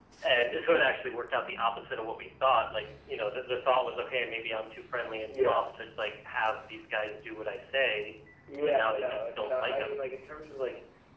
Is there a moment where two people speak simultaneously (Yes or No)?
Yes